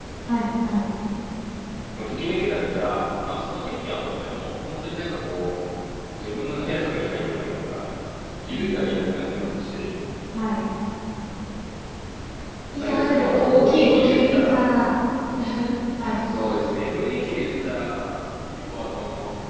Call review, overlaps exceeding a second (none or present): present